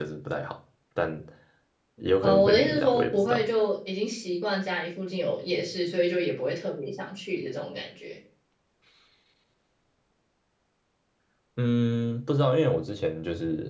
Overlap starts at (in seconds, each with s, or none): 2.2 s